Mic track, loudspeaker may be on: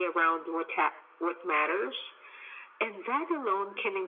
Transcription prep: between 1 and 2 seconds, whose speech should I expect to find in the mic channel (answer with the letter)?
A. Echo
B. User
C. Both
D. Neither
A